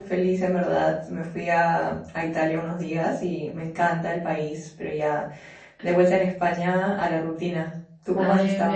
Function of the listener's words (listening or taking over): taking over